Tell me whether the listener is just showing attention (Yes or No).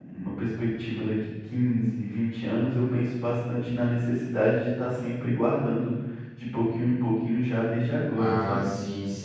No